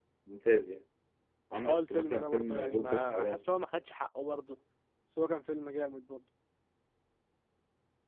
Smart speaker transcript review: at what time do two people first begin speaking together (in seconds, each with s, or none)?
1.6 s